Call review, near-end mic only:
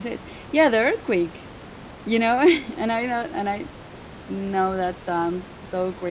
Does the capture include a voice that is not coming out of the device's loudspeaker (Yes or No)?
Yes